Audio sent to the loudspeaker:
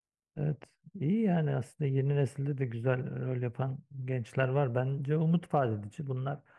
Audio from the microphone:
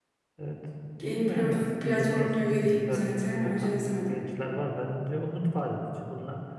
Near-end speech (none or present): present